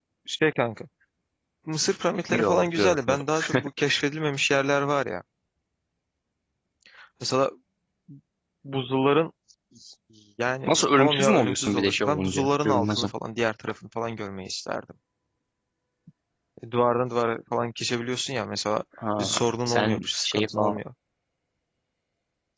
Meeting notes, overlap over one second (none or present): present